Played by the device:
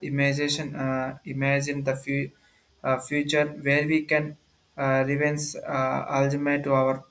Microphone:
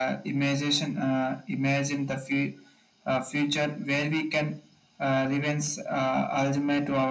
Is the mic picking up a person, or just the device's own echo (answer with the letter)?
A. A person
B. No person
B